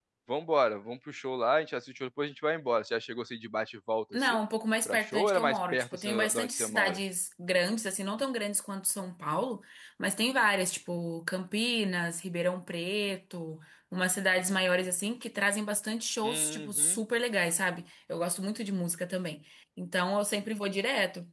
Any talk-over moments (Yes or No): Yes